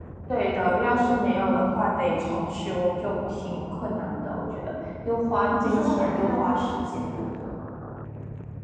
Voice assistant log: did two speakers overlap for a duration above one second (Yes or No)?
Yes